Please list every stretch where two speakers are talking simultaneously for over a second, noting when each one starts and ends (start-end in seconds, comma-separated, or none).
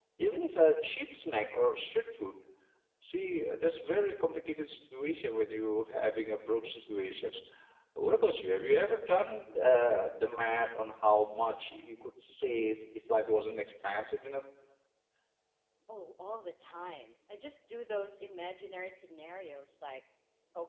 none